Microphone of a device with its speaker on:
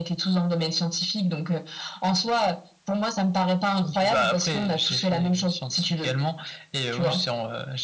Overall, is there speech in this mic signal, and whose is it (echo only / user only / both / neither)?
echo only